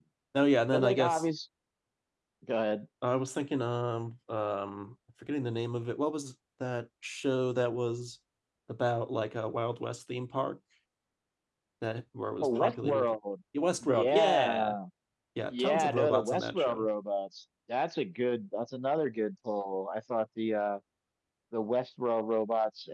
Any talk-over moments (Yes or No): Yes